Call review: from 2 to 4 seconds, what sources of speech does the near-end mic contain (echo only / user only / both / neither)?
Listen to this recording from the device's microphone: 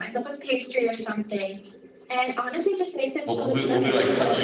both